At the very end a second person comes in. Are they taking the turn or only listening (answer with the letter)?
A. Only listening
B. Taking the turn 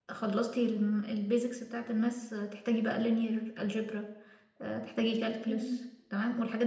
A